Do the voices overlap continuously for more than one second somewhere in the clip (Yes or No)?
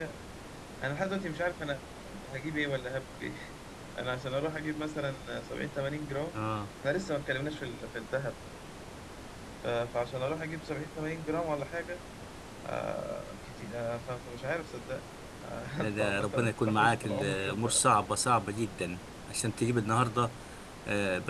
Yes